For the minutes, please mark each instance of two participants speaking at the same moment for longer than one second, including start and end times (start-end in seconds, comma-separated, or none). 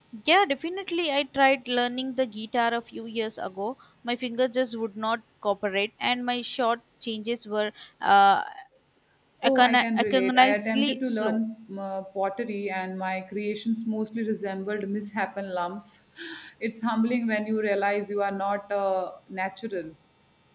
9.4-11.4